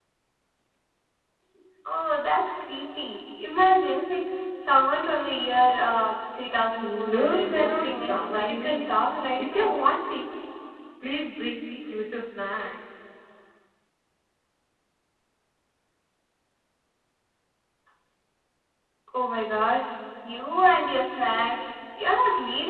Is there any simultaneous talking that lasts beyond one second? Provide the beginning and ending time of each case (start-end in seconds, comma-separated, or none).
6.8-8.9